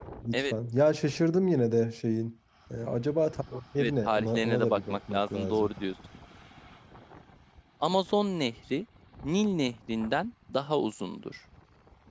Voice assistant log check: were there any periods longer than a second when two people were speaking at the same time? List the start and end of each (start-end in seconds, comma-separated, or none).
3.8-5.7